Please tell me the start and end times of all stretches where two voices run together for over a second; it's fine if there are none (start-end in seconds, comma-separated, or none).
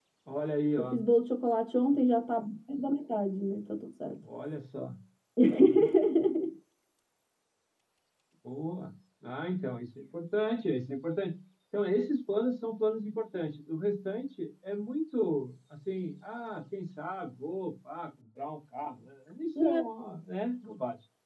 none